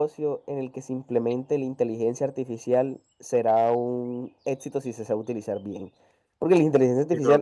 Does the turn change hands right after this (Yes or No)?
No